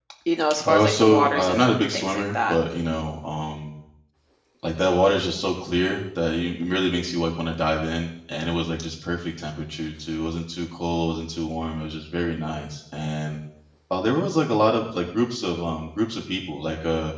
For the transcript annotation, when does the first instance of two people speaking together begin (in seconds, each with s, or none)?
0.6 s